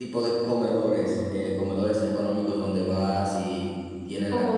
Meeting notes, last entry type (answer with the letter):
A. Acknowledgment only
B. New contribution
B